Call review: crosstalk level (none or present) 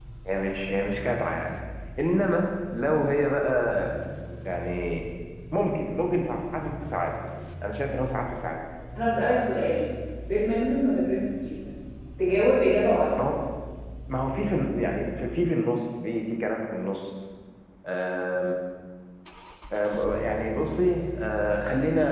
none